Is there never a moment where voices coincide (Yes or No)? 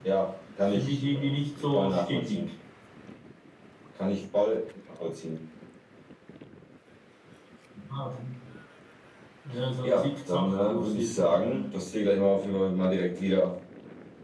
No